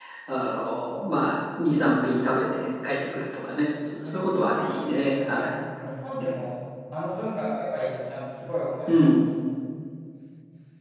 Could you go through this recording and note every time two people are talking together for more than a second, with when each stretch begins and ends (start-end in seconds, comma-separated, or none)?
4.0-5.5